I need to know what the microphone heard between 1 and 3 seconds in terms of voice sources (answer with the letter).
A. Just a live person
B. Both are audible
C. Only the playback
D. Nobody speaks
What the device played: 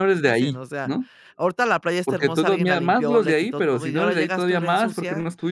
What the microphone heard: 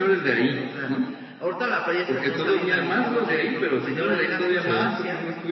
C